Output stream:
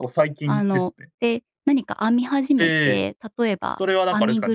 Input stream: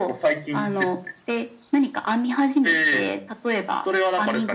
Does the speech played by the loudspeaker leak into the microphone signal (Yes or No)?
Yes